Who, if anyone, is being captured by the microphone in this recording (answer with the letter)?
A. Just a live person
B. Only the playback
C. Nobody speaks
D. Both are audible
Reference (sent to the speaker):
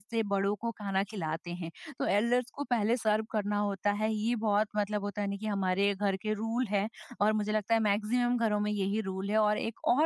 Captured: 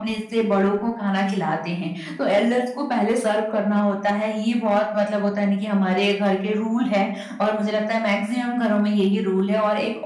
B